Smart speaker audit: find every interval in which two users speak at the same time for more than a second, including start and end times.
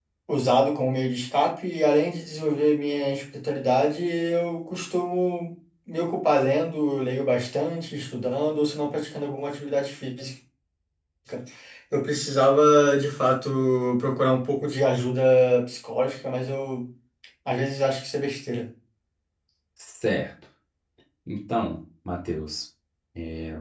none

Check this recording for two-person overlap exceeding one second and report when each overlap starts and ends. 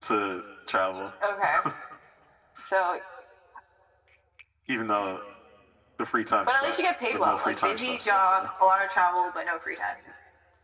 6.5-8.5

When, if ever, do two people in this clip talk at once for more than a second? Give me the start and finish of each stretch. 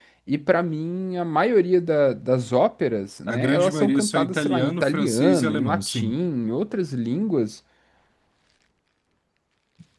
3.3-6.2

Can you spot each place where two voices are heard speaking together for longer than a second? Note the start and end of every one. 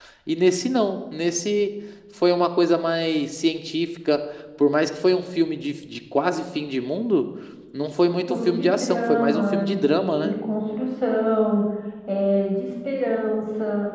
8.3-10.4

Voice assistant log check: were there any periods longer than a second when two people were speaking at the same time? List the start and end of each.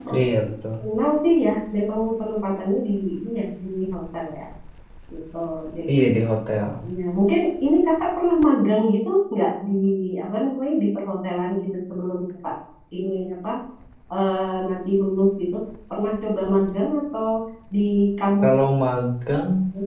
none

